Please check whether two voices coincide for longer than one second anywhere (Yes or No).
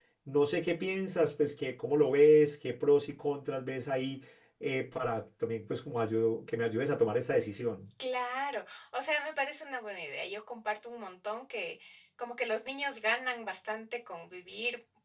No